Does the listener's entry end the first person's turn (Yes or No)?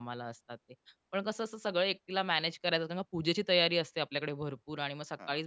No